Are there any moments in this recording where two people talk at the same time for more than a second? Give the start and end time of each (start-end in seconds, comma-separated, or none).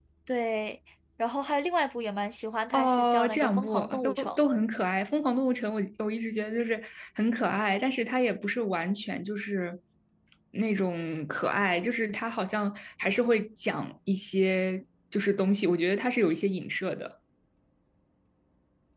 2.7-4.3